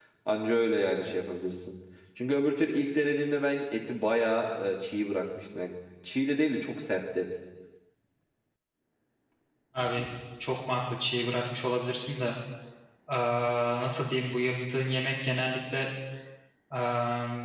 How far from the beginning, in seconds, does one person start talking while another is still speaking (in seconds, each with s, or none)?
none